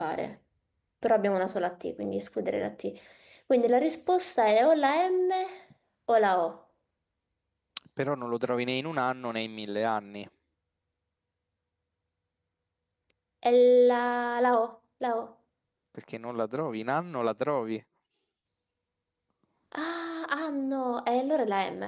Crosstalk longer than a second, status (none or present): none